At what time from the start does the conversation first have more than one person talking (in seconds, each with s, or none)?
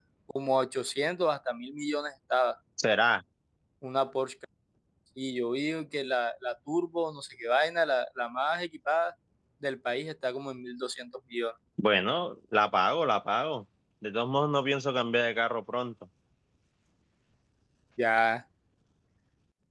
none